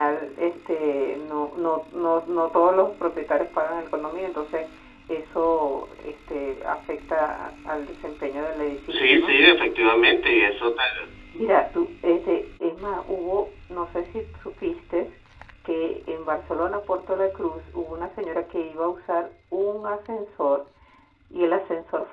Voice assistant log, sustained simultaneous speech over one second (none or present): none